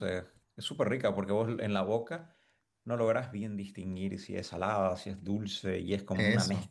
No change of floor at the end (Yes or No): Yes